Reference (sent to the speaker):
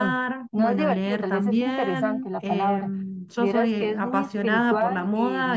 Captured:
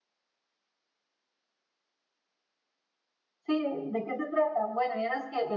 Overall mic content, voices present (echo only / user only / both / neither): user only